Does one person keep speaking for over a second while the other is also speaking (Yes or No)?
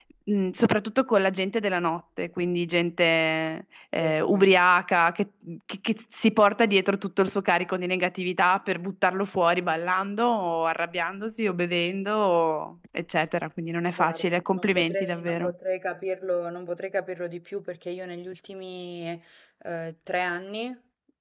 Yes